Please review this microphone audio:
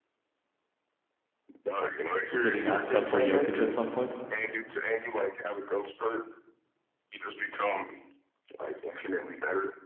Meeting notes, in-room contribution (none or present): present